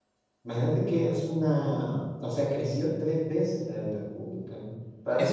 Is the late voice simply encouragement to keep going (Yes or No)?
No